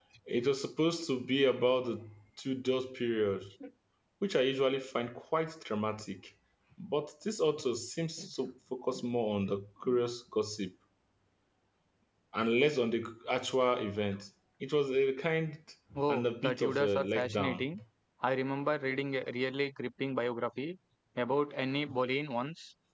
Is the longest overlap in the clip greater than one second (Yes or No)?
Yes